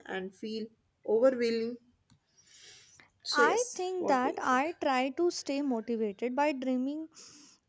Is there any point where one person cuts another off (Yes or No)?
Yes